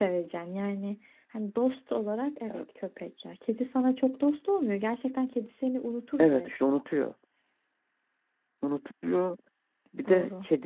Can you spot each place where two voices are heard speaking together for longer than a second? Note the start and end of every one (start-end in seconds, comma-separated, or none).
none